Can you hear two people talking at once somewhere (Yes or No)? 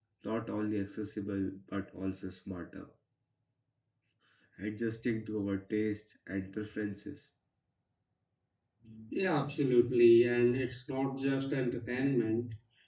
No